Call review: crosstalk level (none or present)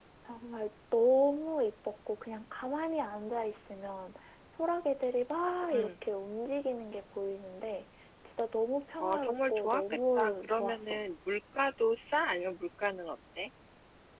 present